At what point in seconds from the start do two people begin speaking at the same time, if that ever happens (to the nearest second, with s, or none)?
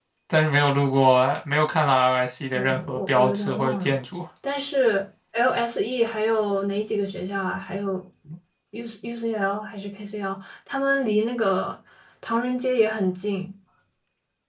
3 s